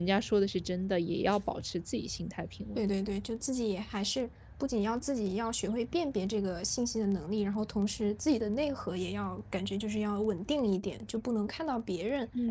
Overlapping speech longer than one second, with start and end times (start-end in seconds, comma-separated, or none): none